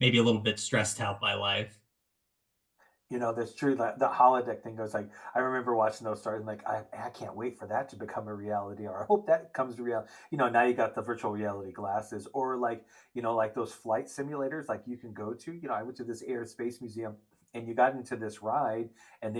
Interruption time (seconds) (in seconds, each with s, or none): none